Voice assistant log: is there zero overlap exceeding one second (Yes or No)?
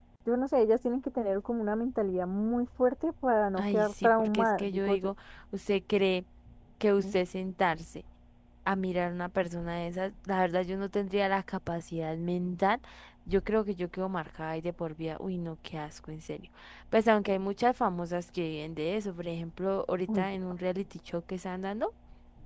No